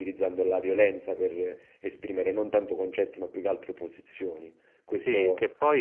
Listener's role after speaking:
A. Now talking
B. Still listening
A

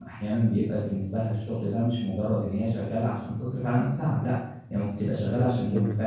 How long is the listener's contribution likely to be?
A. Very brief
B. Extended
A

